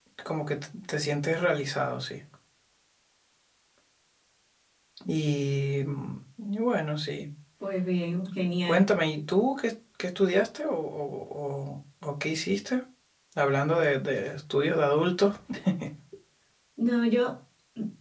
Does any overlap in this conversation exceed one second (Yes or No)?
No